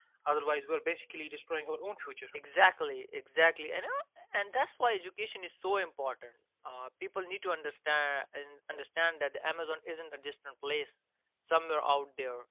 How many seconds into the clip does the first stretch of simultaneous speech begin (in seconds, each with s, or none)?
none